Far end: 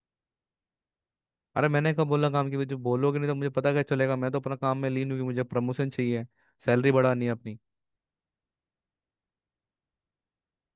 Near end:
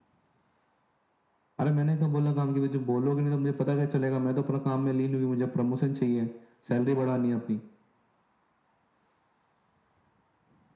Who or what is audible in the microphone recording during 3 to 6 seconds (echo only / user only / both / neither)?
echo only